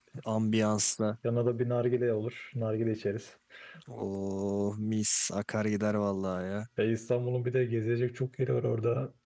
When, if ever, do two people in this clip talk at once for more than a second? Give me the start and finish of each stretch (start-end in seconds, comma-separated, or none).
none